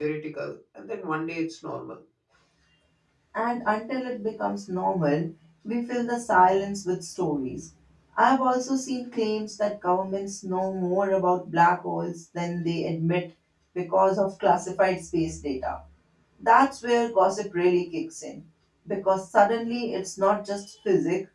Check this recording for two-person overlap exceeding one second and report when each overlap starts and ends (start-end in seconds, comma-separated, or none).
none